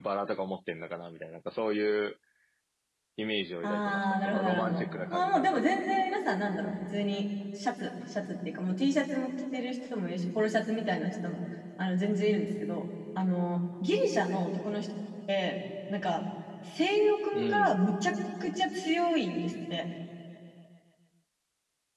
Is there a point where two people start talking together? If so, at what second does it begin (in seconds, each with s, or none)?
3.6 s